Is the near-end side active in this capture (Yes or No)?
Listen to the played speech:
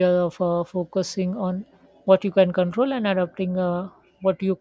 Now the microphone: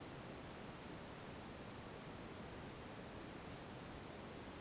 No